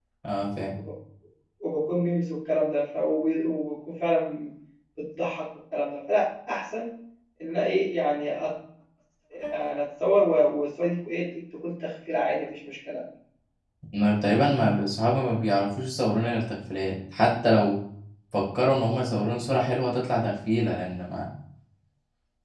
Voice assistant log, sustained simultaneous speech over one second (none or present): none